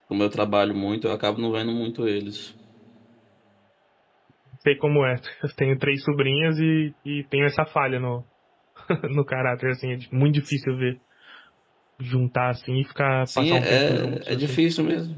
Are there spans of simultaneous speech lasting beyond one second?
Yes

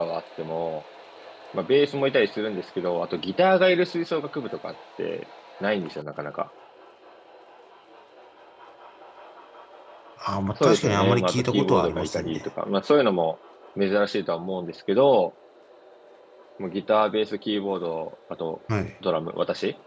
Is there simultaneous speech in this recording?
Yes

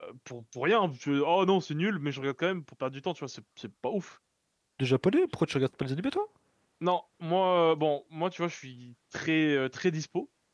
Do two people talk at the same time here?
No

